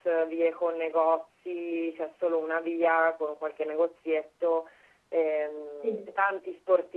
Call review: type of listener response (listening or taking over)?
listening